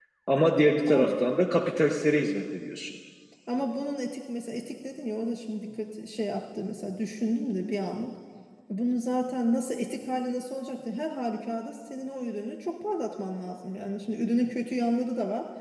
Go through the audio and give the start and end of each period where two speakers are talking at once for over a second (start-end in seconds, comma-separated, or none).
none